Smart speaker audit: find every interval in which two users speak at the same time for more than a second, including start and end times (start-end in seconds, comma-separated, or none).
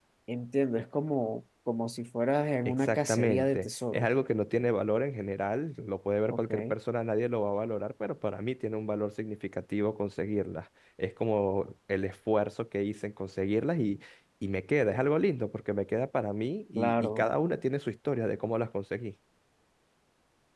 2.6-4.1